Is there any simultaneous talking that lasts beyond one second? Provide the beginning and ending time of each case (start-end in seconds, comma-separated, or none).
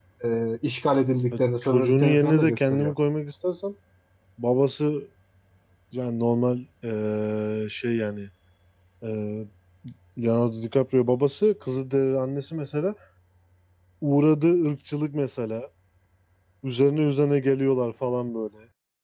1.6-2.9